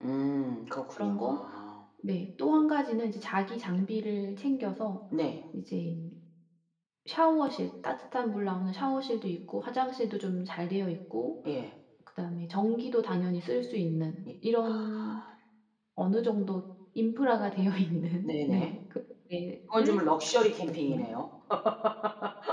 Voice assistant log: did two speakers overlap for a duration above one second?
No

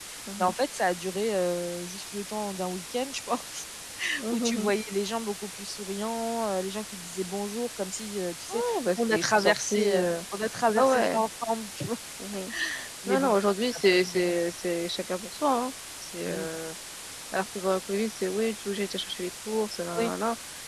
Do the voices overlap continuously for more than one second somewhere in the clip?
Yes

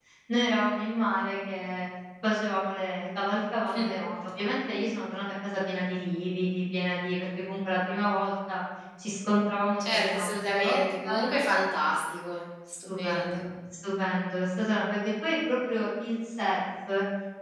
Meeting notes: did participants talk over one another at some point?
Yes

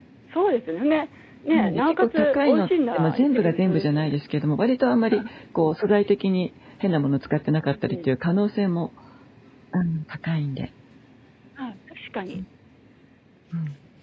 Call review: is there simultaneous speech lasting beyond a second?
Yes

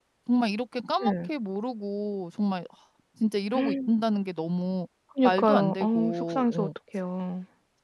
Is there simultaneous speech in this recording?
Yes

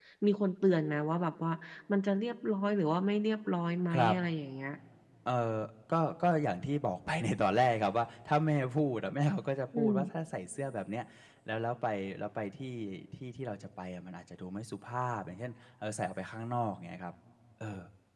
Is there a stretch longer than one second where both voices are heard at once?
No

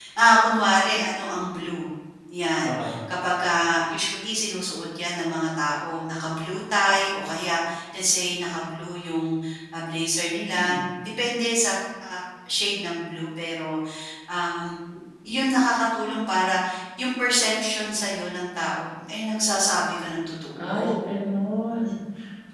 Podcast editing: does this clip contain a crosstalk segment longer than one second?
No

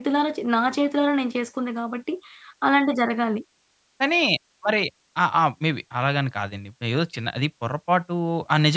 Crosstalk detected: No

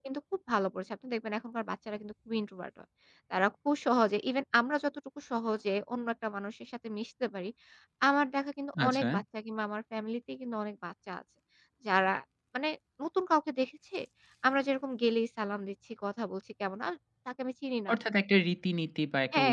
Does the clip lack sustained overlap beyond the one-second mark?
Yes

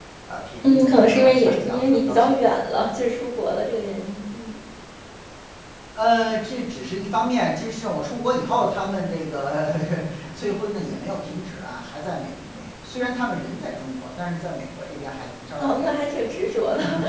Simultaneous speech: Yes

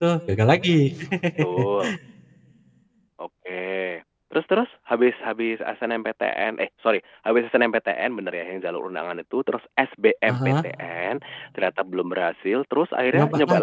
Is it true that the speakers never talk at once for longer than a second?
Yes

